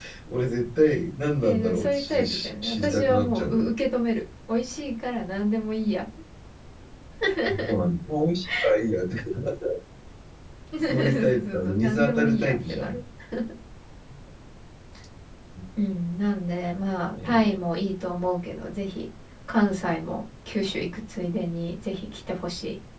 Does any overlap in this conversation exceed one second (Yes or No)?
Yes